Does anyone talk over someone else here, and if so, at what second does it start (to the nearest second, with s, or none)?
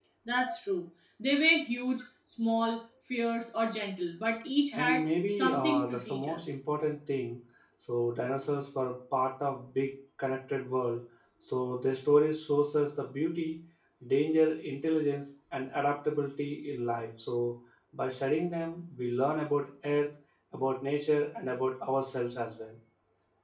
5 s